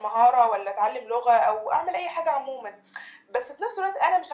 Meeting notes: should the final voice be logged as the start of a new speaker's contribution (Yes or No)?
No